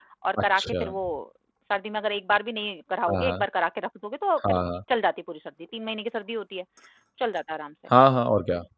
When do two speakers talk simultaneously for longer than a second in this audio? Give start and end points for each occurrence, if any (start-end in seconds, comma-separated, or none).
none